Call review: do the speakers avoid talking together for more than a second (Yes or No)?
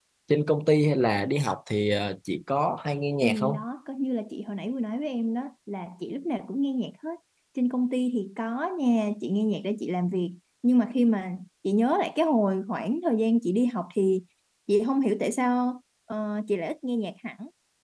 Yes